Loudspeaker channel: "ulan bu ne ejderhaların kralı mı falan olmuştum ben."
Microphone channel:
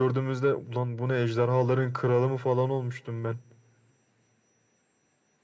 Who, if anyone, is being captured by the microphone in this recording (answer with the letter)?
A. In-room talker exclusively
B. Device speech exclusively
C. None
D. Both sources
B